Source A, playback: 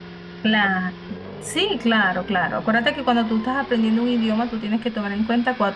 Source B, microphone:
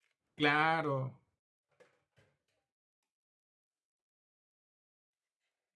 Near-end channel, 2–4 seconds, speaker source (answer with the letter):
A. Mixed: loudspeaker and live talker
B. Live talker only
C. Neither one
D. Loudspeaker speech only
C